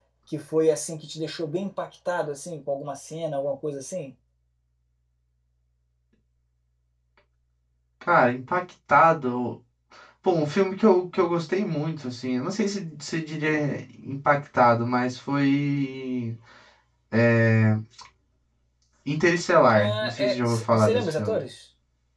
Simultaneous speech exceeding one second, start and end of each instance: 19.7-21.4

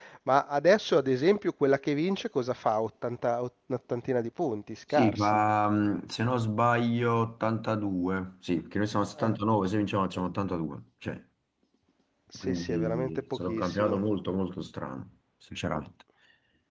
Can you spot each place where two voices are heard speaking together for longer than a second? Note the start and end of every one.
12.4-14.0

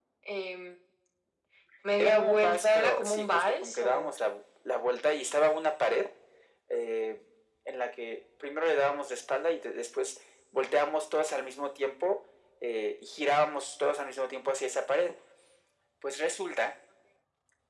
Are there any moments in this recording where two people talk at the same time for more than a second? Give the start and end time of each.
2.0-4.1

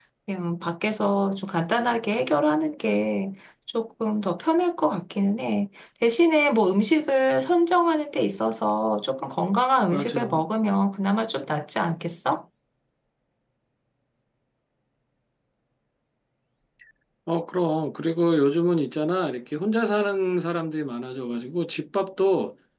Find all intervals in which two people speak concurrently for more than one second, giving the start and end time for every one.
none

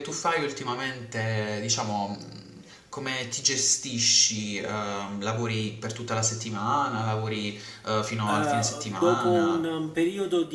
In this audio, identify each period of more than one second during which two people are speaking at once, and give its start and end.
8.3-9.7

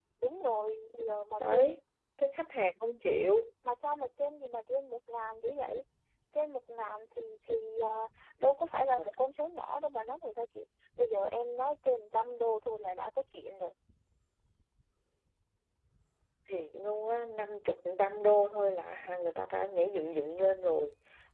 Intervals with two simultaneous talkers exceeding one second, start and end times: none

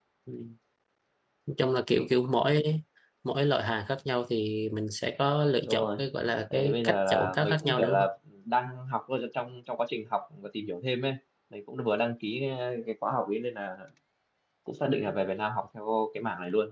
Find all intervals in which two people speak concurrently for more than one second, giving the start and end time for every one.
6.5-8.1

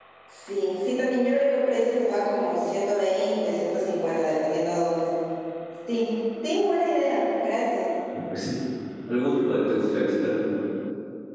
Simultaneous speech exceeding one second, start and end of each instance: none

